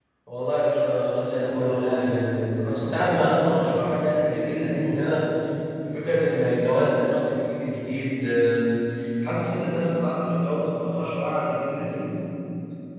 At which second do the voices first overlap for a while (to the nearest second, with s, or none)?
1 s